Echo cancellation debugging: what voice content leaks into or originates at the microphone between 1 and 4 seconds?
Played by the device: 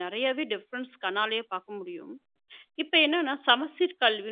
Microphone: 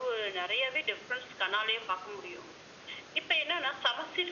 echo only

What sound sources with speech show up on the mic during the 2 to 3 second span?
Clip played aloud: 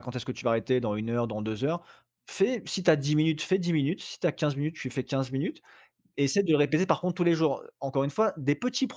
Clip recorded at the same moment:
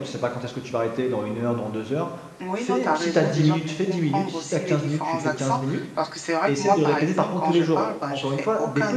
both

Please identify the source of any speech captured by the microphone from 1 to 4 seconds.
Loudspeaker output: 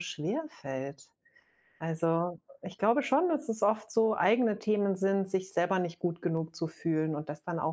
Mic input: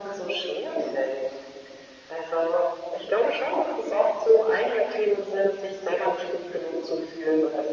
echo only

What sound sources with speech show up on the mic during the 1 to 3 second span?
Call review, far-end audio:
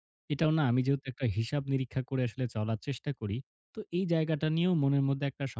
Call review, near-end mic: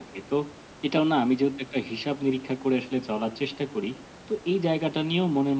echo only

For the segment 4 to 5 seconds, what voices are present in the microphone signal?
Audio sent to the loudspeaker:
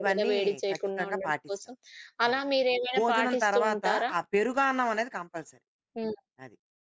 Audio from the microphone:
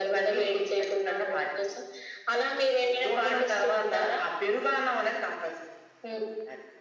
echo only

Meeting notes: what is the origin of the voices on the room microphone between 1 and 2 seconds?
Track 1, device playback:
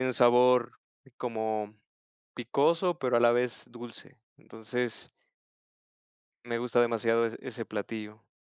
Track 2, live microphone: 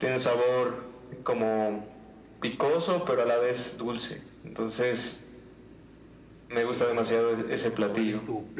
echo only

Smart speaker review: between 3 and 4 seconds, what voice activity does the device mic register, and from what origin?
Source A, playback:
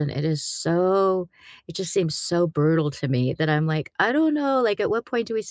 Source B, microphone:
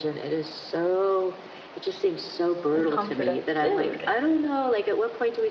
both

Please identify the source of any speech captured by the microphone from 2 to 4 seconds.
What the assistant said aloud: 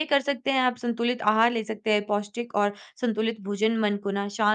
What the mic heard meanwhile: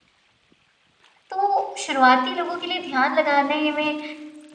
user only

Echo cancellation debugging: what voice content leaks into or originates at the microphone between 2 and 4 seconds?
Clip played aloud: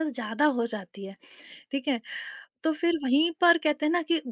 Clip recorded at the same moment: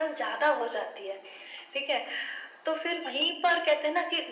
echo only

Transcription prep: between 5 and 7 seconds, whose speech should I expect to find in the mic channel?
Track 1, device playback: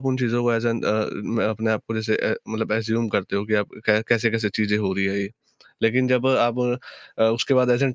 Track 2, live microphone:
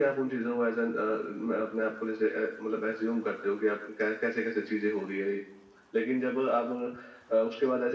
echo only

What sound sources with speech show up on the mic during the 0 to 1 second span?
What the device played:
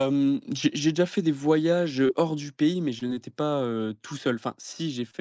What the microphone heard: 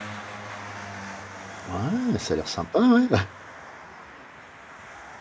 neither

